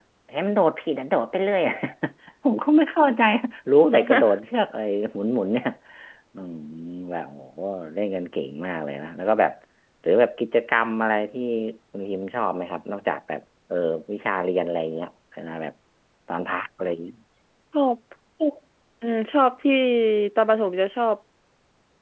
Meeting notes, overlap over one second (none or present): none